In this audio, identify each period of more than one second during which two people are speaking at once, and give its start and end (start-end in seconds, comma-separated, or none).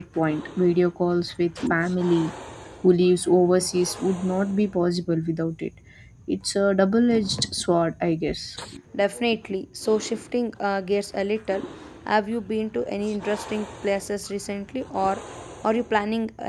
none